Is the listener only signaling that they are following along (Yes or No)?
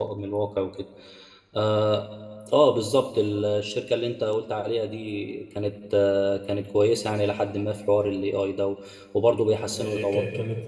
No